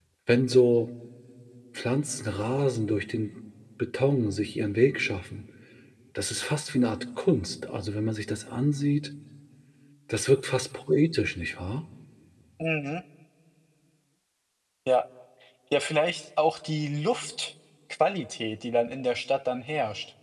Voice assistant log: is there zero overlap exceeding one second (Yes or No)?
Yes